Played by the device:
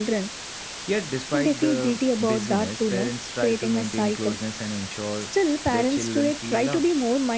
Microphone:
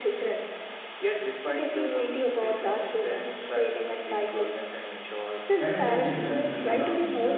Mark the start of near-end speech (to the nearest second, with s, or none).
6 s